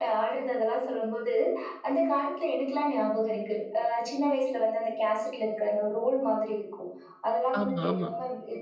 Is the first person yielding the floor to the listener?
No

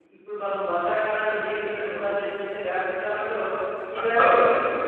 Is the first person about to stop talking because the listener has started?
No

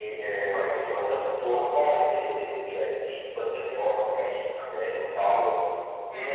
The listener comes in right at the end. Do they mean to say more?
No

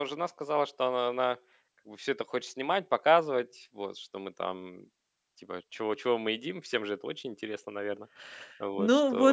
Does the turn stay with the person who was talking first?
No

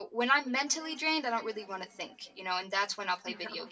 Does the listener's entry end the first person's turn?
No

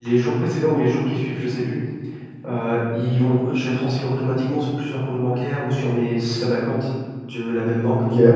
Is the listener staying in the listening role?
Yes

